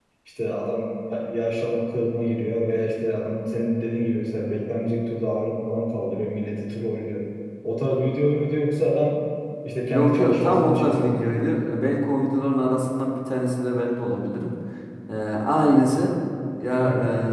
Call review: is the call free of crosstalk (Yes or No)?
No